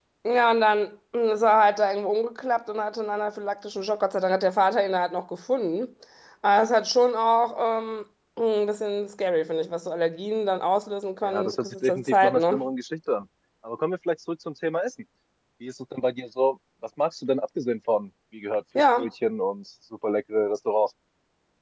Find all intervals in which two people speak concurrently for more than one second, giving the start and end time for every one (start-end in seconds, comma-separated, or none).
11.2-12.6